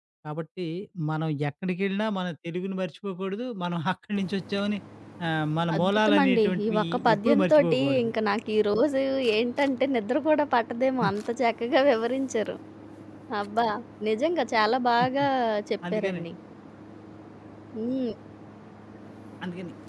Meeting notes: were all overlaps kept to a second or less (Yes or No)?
No